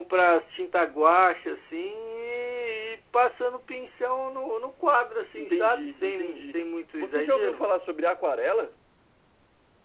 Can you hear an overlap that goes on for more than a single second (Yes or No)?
Yes